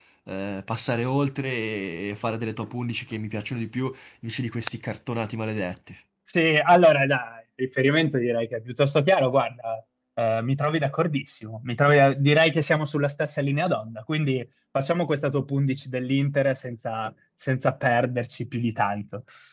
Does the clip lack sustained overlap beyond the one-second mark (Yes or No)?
Yes